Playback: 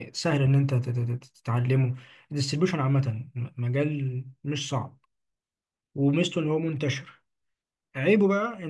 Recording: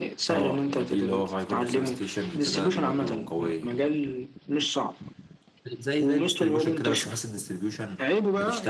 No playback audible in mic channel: No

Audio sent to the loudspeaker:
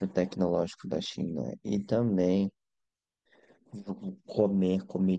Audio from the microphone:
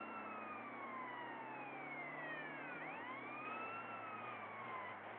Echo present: No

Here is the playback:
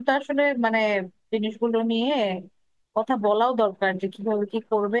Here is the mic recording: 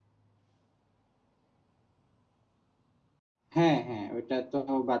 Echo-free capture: Yes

